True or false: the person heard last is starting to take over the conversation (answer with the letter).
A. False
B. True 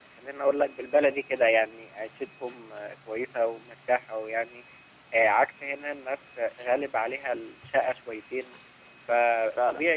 A